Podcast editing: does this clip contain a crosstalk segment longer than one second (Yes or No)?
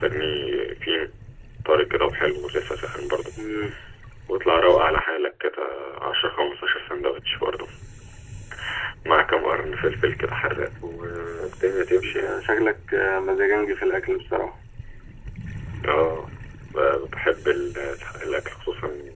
No